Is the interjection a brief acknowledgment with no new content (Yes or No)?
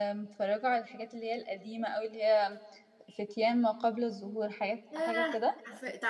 No